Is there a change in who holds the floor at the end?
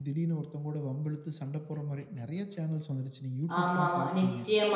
Yes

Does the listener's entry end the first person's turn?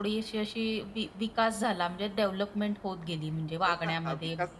Yes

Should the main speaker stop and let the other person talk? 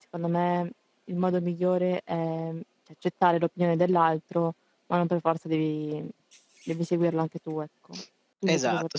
Yes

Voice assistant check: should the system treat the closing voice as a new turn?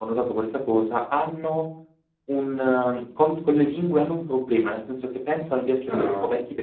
No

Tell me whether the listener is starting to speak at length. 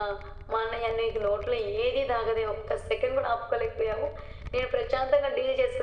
No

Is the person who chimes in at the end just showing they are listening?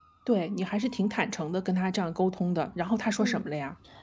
No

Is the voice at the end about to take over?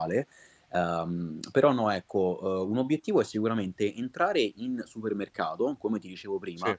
No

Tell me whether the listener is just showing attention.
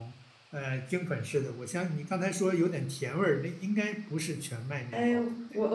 No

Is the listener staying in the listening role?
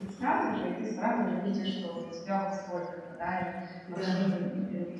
Yes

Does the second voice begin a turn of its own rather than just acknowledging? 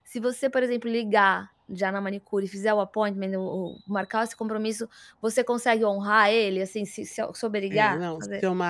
Yes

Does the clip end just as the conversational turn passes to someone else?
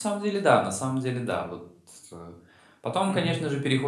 No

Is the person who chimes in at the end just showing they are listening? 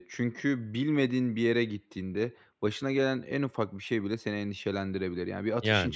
Yes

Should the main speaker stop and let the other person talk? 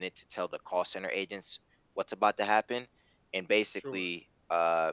No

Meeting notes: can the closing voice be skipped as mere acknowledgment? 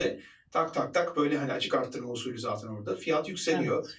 Yes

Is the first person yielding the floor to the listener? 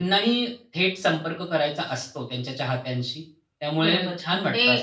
Yes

